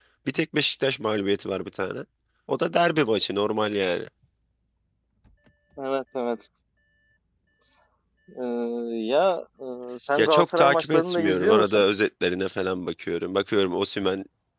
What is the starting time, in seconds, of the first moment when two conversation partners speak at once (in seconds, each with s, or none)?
10.2 s